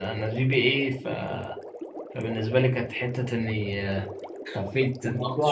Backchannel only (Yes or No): Yes